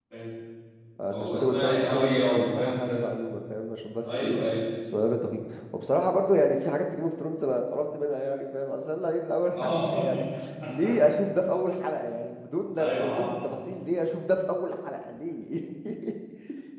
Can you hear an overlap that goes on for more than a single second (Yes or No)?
Yes